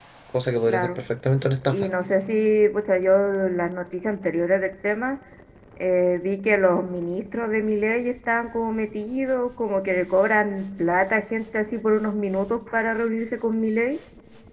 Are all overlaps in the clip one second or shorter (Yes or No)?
Yes